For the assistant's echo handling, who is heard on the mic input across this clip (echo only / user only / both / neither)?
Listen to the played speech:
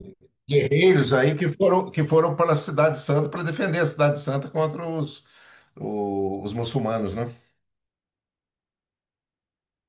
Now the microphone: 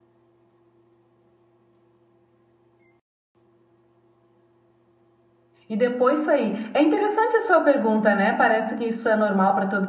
user only